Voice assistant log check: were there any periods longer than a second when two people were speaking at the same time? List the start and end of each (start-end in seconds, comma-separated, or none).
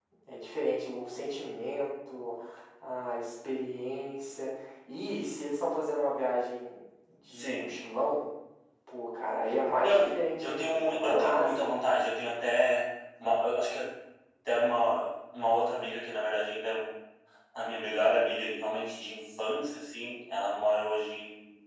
10.4-11.7